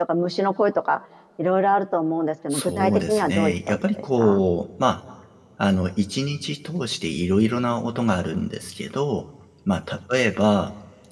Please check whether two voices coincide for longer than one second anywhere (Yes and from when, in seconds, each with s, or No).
Yes, from 2.5 s